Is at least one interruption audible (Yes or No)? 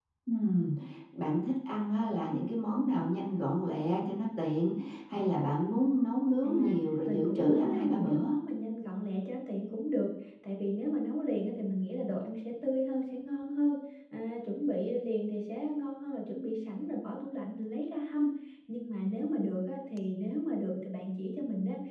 Yes